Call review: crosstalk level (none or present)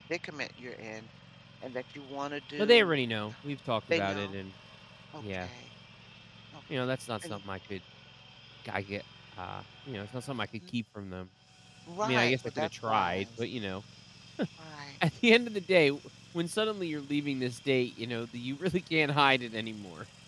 present